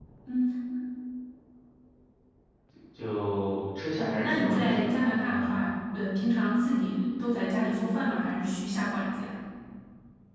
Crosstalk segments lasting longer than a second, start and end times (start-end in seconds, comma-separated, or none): 4.0-5.5